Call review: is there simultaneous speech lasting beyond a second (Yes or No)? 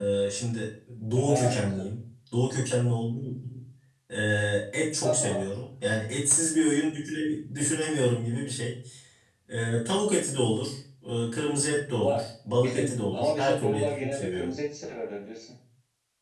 Yes